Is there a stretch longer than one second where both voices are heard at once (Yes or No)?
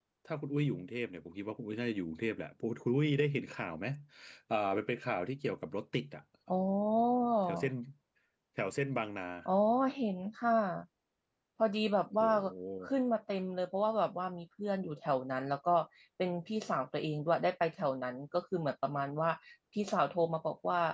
No